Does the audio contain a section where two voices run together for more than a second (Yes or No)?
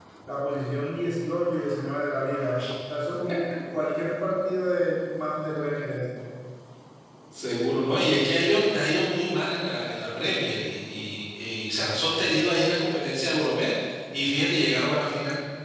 No